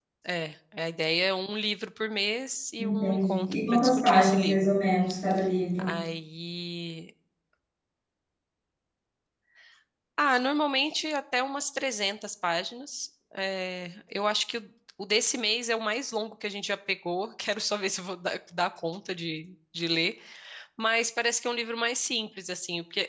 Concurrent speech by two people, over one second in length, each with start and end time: 2.8-4.7

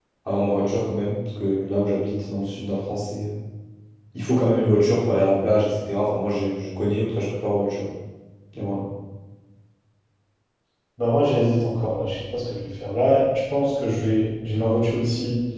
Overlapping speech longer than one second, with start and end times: none

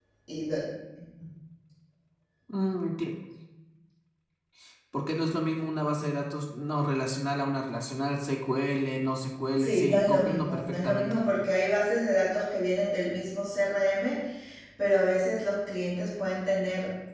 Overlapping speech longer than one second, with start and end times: 9.6-11.2

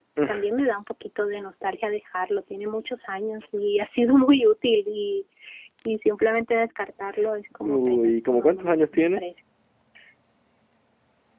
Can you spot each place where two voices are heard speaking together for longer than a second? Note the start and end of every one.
7.6-9.2

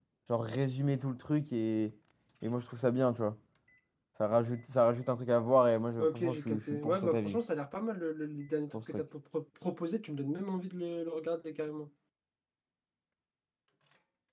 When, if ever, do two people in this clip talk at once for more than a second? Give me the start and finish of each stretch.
6.0-7.4

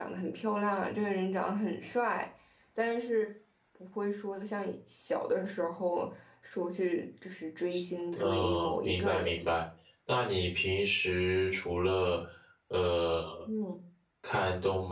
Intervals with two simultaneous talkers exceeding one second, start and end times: 8.1-9.3

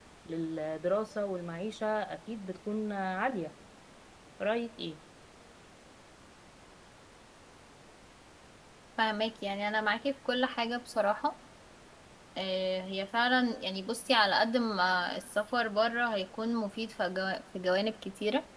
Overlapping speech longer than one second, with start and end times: none

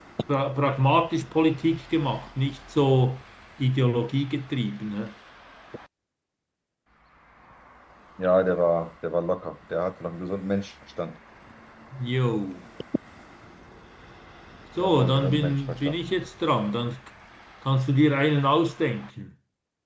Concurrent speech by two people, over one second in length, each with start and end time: 14.8-16.0

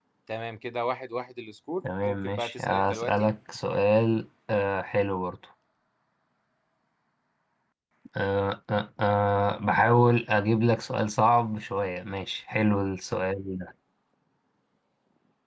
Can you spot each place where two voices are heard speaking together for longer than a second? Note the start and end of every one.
2.0-3.3

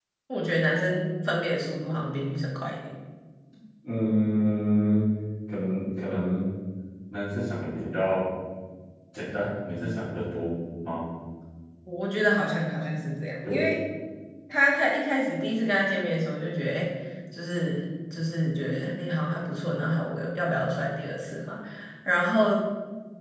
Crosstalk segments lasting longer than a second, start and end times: none

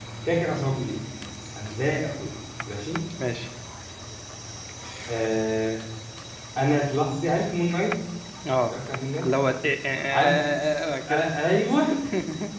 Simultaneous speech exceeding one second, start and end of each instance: none

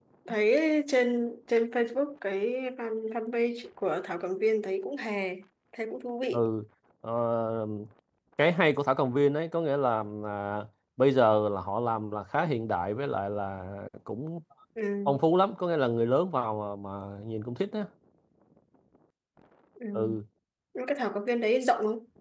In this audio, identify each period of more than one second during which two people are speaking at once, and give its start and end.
none

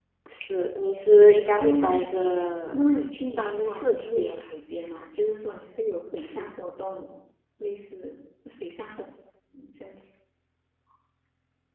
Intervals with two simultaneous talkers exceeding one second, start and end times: 2.7-4.5

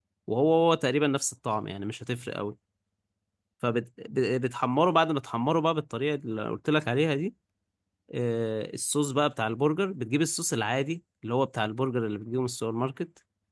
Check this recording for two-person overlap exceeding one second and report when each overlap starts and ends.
none

